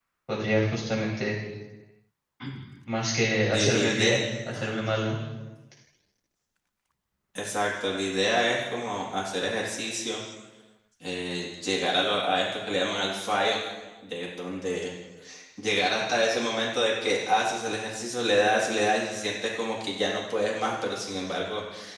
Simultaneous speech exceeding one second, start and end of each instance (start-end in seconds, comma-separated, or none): 3.5-4.8